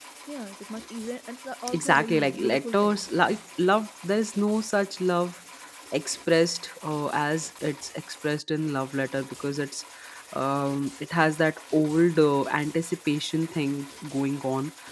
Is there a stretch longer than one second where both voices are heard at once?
Yes, from 1.7 s

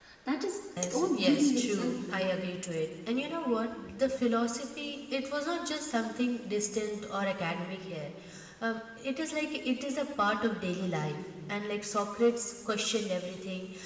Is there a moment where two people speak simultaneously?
Yes, from 0.8 s

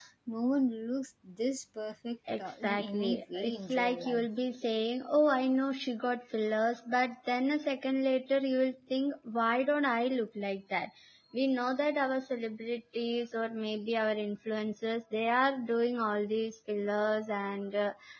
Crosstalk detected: Yes, from 2.3 s

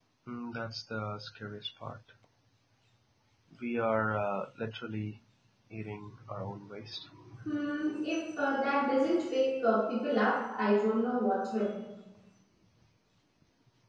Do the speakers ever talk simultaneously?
No

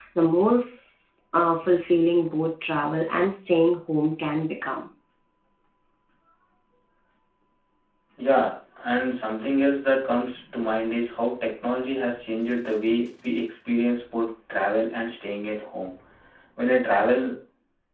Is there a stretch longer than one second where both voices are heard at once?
No

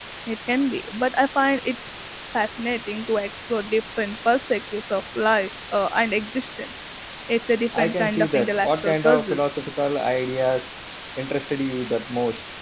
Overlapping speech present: Yes, from 7.8 s

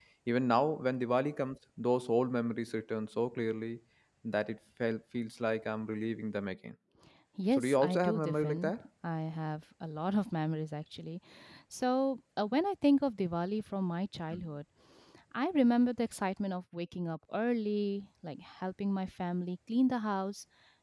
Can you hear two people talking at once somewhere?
Yes, from 7.5 s

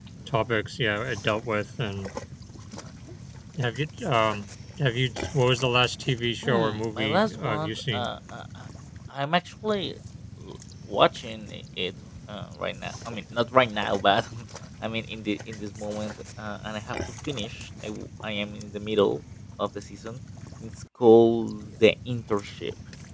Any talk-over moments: Yes, from 6.4 s

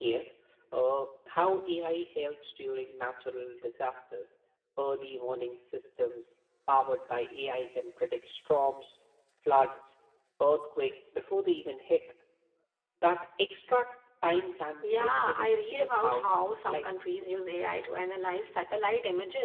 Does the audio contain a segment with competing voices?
Yes, from 14.8 s

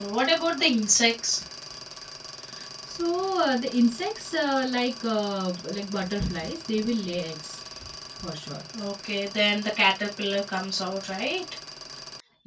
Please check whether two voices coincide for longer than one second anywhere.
No

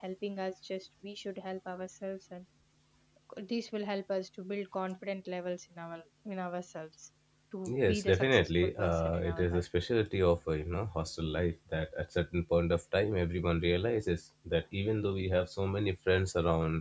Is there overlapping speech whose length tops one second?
Yes, from 7.7 s

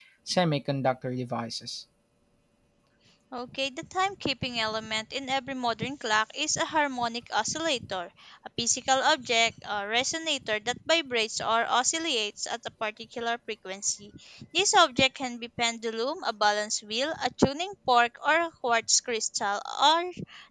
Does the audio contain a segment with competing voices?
No

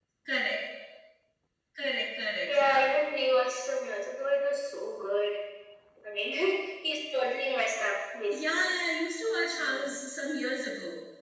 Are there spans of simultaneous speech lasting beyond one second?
No

